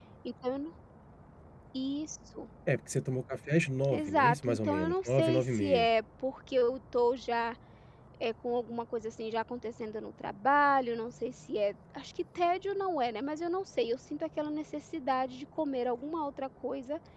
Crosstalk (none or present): present